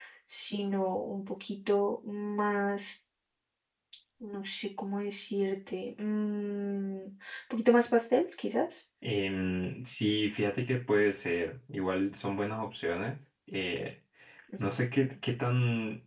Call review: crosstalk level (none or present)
none